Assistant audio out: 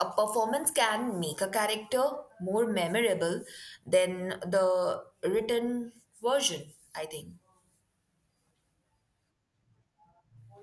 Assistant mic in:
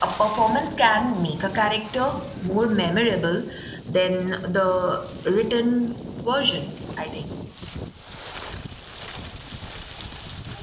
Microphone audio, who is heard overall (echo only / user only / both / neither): echo only